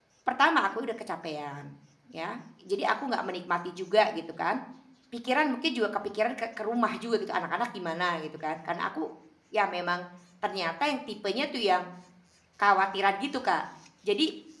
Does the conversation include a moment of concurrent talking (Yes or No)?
No